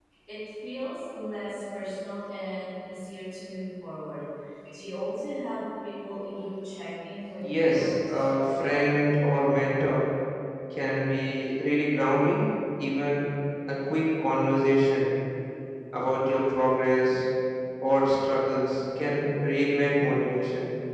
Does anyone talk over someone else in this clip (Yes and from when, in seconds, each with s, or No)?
Yes, from 7.4 s